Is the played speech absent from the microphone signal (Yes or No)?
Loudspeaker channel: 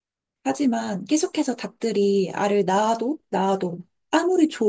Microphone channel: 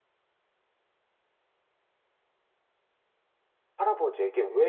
Yes